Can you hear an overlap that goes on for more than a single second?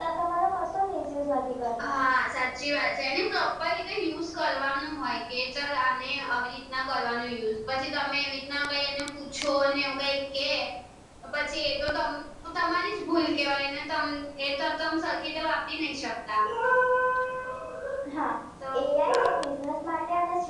No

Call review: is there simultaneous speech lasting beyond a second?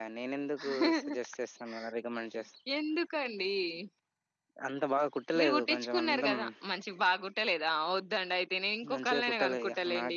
Yes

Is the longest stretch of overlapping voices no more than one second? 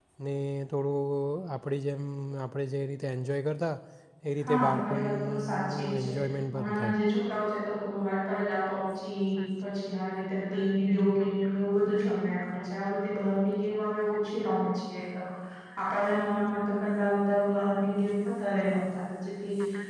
No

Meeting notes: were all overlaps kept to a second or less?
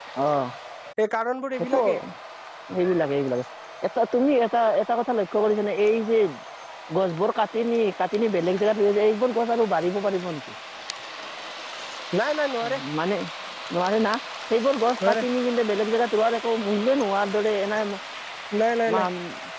Yes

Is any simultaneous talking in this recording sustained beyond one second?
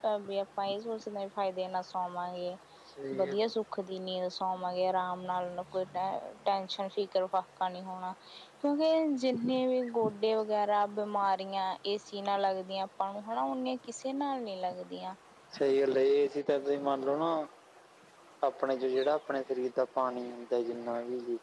No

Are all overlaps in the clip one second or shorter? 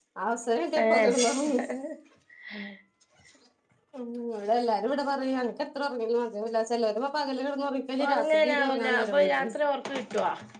No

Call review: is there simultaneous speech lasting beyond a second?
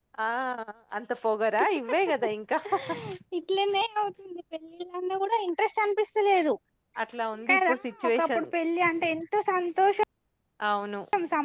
No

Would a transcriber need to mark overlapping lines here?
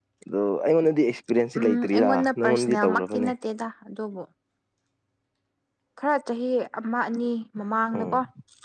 Yes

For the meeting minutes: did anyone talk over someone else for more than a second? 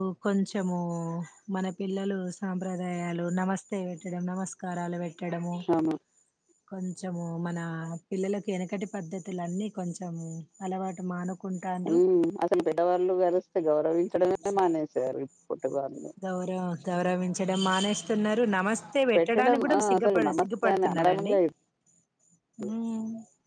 Yes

